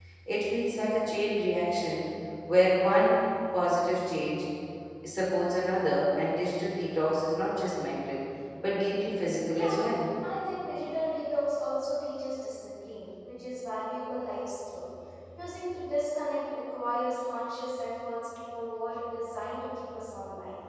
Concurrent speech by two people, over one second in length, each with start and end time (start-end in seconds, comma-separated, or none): none